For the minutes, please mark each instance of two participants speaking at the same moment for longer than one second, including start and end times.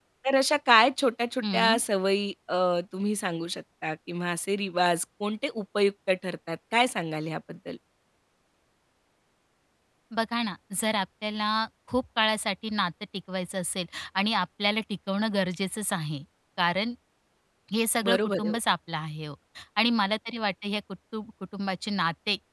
none

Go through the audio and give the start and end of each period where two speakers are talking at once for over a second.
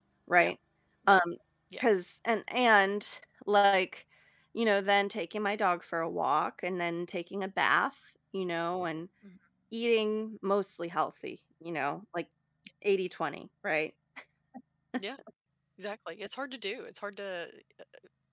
none

